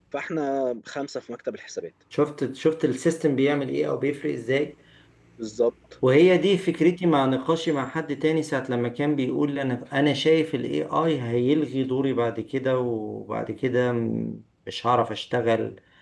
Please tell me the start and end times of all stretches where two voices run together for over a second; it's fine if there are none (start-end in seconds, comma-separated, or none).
none